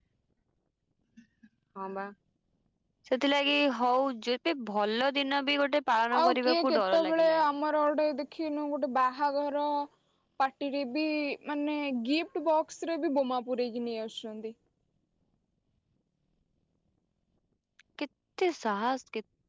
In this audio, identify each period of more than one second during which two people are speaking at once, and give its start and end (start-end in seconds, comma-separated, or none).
6.2-7.4